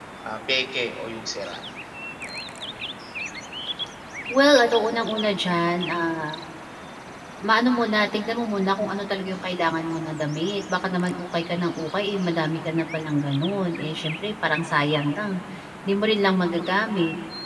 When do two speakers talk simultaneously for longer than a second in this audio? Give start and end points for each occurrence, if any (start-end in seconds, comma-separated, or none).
none